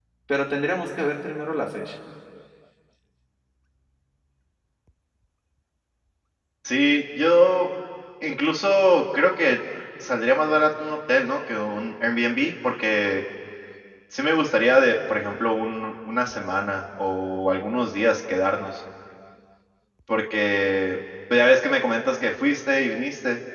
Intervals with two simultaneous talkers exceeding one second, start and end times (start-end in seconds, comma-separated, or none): none